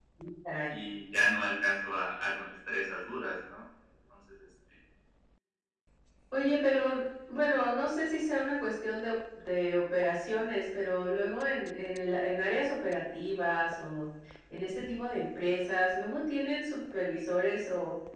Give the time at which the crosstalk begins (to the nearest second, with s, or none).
none